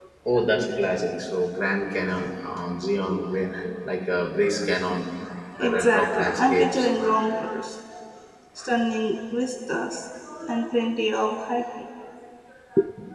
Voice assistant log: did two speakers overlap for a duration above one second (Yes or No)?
Yes